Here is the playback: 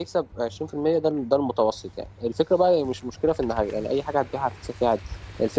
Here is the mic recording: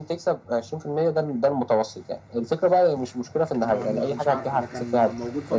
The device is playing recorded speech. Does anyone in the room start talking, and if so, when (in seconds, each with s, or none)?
3.6 s